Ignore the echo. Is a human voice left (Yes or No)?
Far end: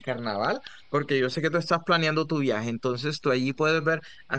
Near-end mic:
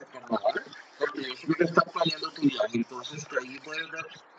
No